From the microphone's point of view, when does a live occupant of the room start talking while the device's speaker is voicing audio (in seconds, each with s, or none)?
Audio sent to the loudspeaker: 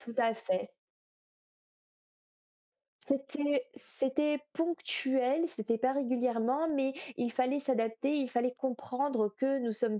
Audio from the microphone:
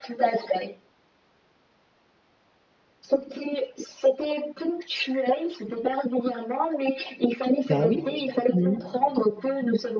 7.7 s